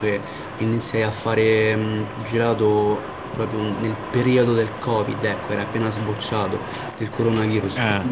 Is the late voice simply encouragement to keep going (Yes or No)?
Yes